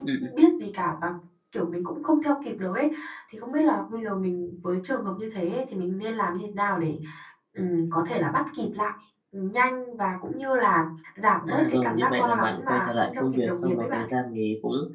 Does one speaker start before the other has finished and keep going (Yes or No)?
Yes